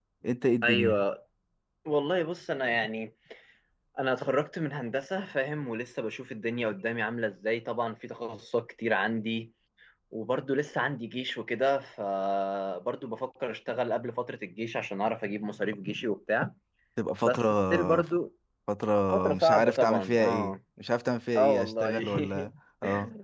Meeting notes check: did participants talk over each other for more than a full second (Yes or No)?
Yes